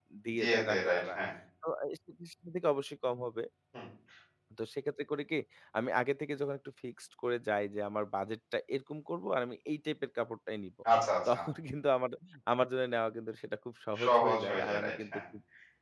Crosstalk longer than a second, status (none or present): present